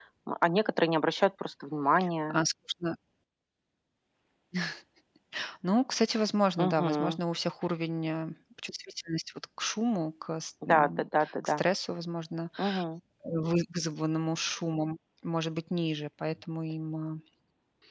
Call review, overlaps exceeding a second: none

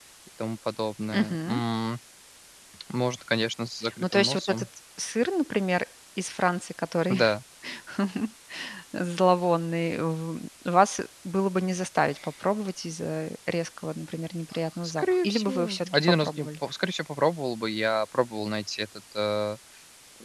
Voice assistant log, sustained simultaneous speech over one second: present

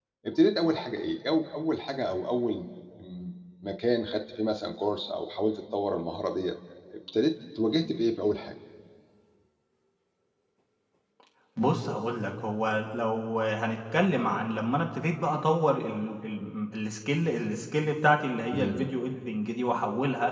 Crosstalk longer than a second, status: none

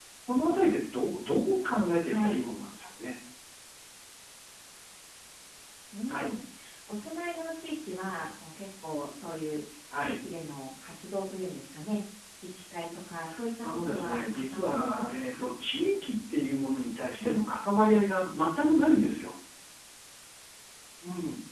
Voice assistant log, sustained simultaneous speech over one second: present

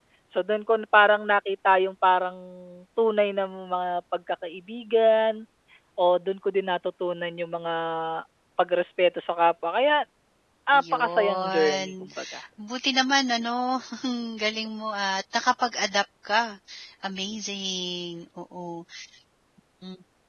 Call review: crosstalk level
present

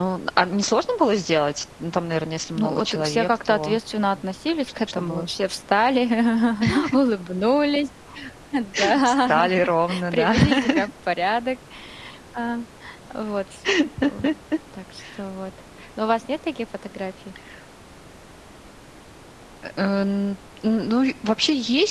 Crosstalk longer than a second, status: present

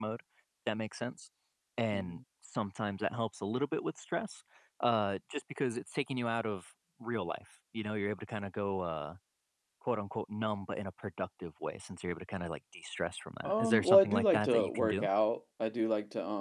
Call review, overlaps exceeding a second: present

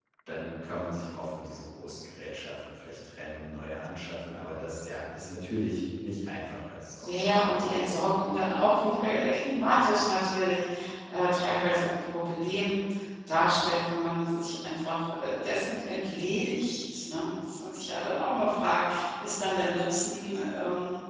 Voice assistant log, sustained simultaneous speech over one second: present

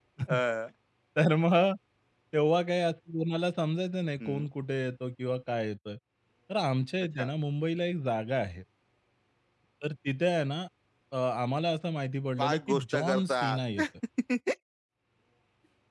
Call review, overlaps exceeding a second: present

